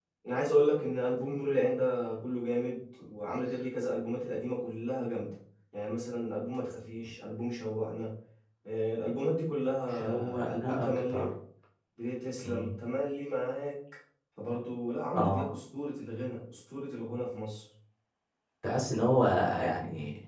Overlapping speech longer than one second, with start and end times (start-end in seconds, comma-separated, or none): 9.9-11.3